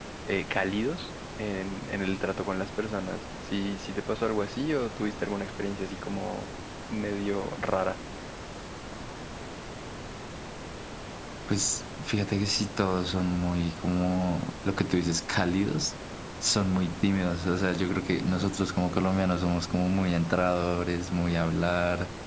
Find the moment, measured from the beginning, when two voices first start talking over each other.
none

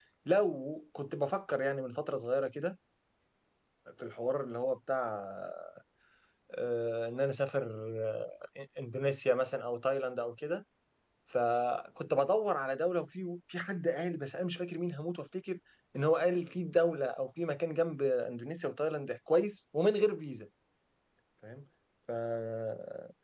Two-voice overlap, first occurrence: none

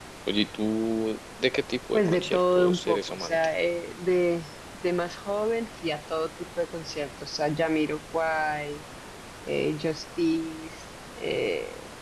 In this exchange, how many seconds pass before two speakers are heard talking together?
1.9 s

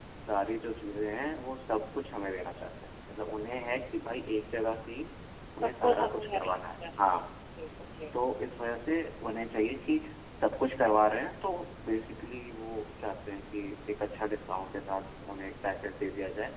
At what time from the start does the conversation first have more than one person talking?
5.6 s

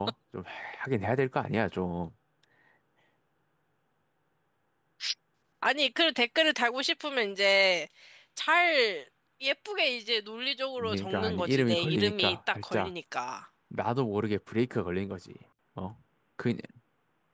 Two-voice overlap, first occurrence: 10.8 s

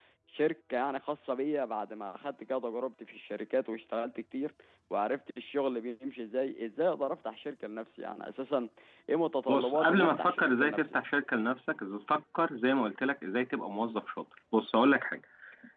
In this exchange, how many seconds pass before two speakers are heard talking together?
9.5 s

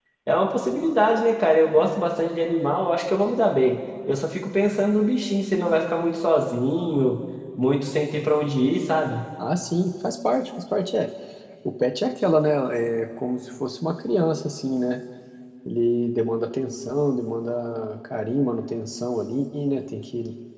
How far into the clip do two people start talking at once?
none

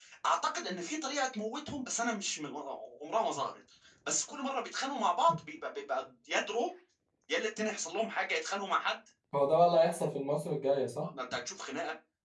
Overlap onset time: none

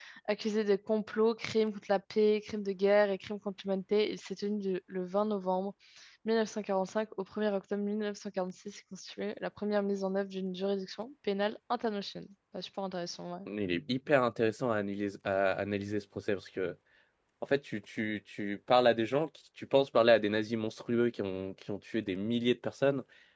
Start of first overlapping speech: none

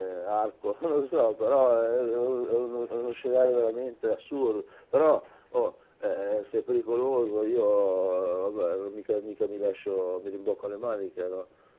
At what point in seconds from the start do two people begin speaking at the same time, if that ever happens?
none

